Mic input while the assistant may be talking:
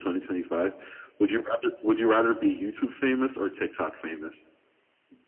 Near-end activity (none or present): none